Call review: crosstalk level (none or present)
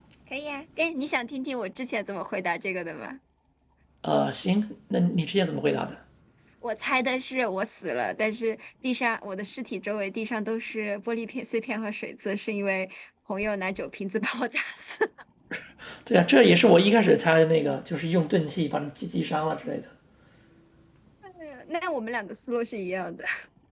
none